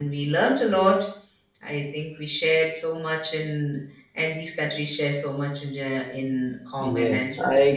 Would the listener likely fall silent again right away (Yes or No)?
No